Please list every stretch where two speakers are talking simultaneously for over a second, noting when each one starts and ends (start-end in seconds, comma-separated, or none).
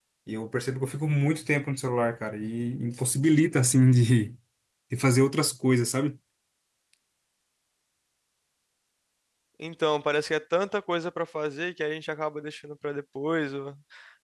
none